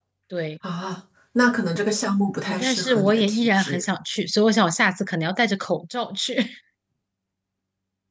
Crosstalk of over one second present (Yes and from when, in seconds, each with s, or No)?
Yes, from 2.5 s